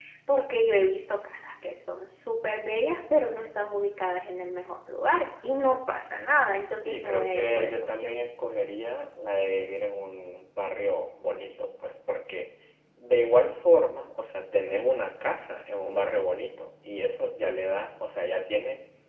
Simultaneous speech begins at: 6.7 s

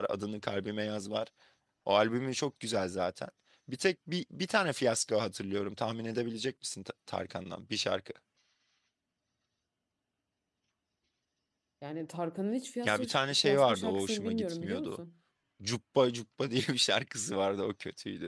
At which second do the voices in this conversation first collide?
12.8 s

